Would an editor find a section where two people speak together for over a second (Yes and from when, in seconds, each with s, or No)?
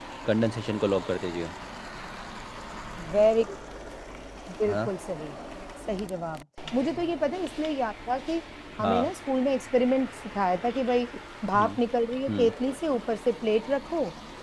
No